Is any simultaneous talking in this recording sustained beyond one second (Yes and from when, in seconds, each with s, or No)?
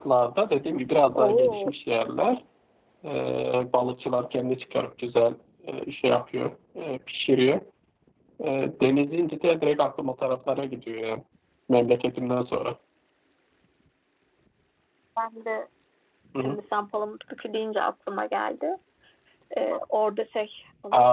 No